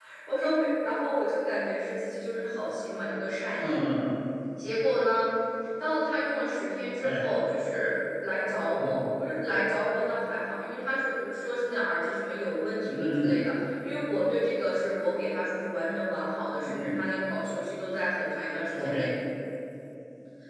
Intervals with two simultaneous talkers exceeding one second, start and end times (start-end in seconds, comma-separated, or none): none